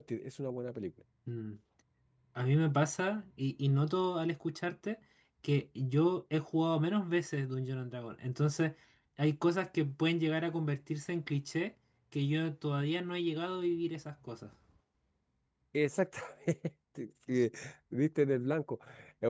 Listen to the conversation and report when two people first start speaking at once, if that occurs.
none

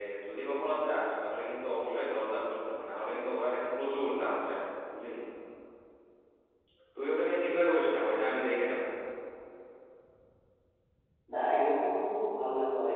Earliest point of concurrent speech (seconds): none

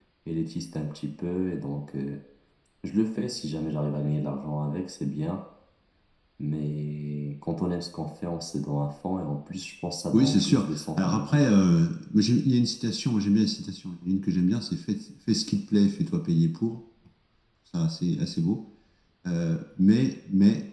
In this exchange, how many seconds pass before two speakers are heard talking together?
10.1 s

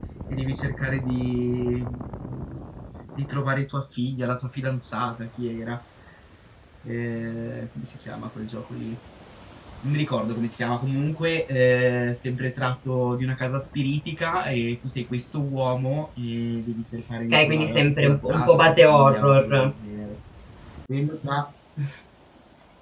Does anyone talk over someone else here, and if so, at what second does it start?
17.3 s

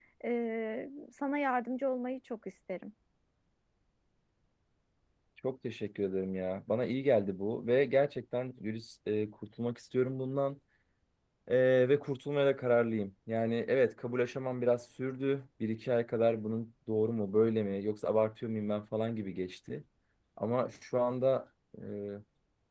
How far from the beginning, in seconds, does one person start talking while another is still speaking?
none

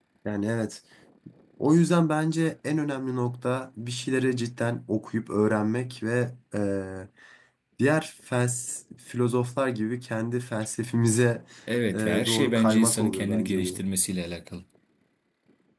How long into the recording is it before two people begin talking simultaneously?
11.9 s

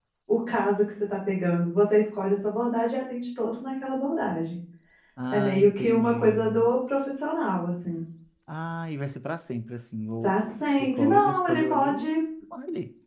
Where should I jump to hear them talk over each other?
5.3 s

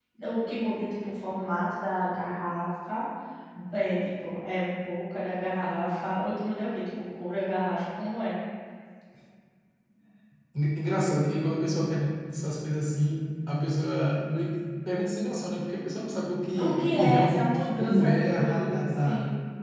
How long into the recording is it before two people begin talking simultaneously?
16.6 s

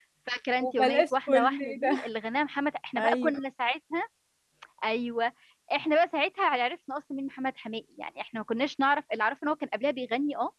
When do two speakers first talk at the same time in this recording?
0.6 s

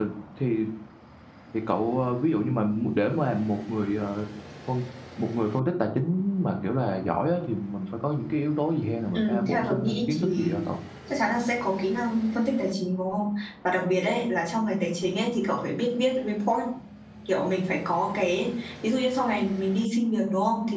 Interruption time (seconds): 9.1 s

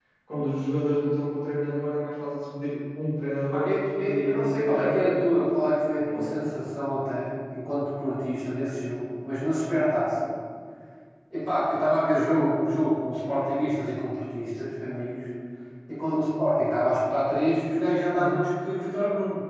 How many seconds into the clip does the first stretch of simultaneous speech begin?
3.5 s

